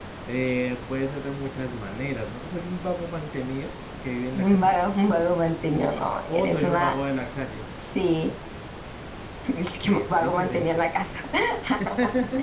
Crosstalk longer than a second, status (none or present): present